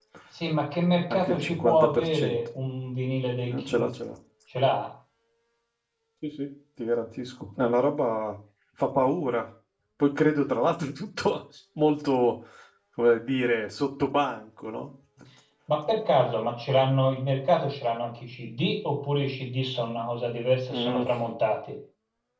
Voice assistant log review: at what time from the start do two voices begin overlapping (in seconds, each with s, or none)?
1.1 s